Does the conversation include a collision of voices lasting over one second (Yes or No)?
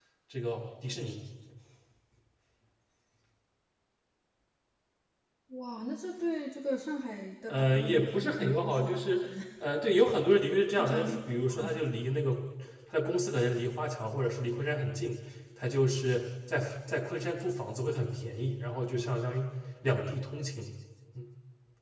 Yes